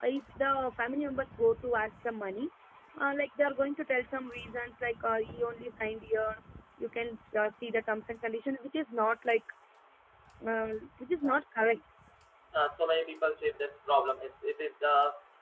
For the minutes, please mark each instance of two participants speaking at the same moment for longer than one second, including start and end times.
none

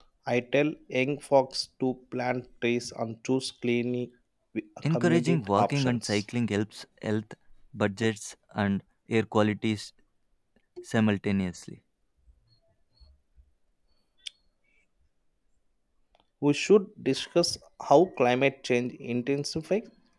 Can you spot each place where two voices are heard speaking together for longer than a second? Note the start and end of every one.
4.9-6.2

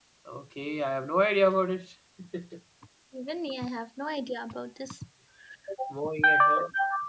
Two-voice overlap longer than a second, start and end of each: none

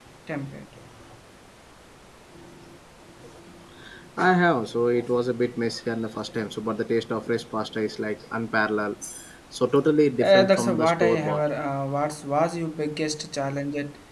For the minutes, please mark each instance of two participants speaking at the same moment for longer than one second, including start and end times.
10.2-11.4

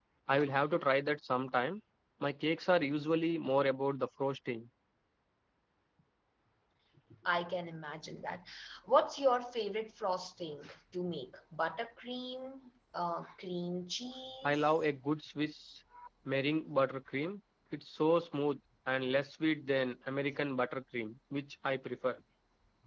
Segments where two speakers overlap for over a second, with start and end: none

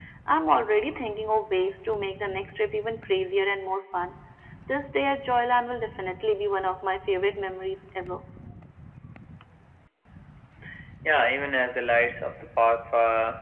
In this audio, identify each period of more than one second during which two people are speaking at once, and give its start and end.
none

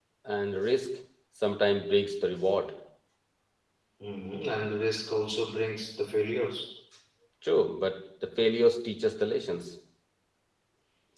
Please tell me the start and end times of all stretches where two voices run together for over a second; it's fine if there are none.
none

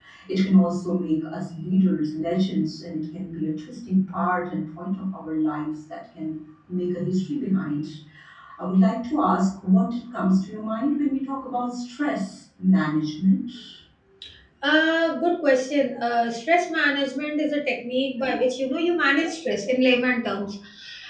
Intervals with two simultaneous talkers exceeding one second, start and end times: none

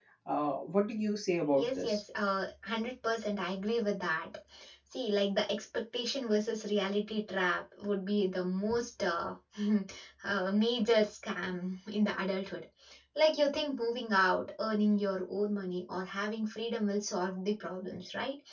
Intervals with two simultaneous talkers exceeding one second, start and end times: none

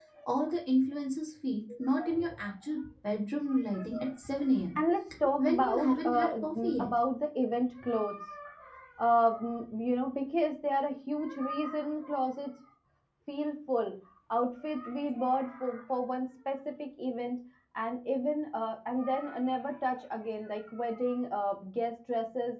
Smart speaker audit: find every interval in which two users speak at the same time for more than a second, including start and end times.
5.4-6.9

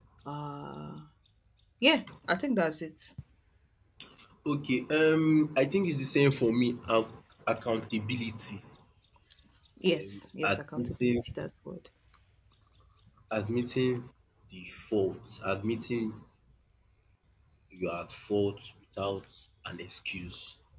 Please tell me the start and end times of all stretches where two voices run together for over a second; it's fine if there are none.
9.9-11.2

